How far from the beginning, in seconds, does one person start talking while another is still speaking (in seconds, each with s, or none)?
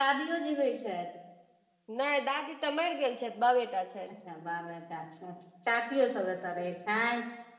none